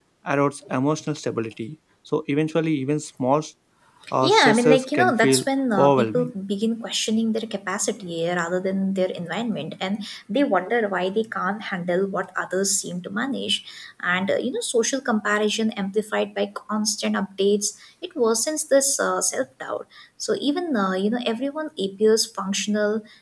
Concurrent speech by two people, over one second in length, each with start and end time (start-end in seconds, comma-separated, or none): 4.2-5.4